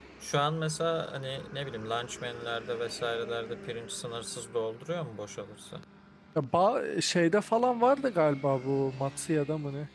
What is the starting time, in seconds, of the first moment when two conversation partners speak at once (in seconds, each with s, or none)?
none